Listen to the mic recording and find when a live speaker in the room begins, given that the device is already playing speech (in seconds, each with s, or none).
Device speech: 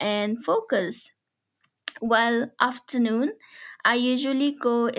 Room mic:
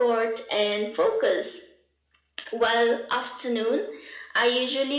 none